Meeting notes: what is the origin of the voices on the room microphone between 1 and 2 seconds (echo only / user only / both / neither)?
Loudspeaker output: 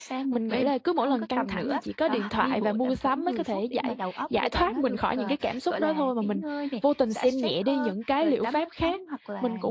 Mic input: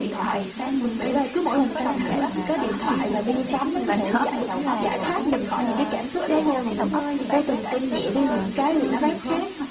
both